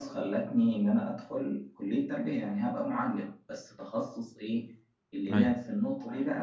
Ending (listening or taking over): listening